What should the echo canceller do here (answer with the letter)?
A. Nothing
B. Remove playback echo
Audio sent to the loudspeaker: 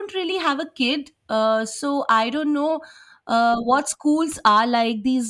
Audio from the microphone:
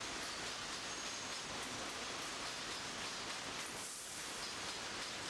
A